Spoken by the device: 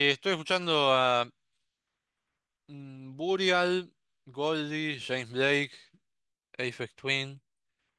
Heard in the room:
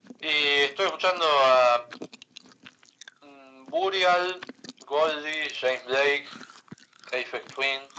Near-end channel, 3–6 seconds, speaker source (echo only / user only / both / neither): echo only